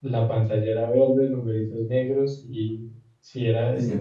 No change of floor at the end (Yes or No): Yes